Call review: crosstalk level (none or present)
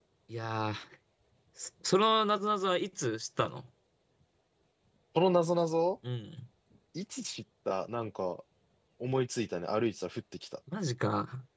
none